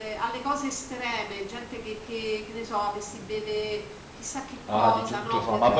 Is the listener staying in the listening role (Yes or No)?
No